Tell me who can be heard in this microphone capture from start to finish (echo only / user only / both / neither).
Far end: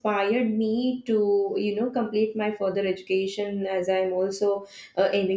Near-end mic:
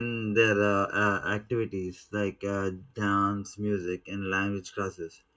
user only